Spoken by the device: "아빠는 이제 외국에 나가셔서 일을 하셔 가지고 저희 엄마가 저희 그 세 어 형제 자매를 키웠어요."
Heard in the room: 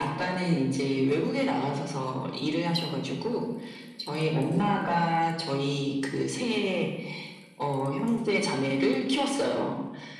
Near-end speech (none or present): none